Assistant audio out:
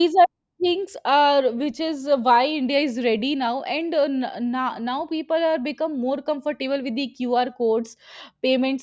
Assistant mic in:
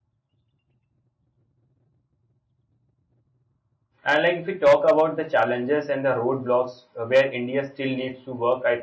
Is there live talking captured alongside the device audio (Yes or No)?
Yes